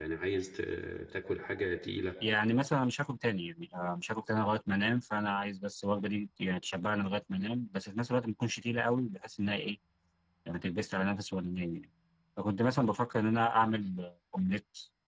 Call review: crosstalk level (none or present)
none